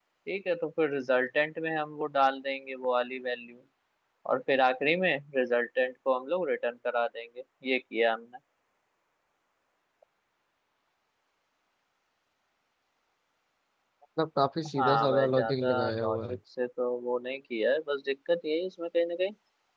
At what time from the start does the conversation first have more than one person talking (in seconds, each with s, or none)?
14.8 s